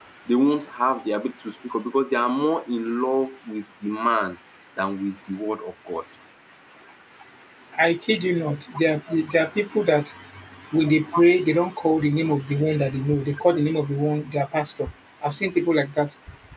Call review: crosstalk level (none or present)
none